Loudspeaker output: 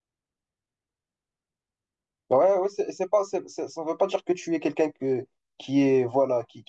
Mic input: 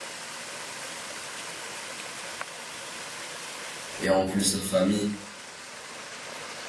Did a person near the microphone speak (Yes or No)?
Yes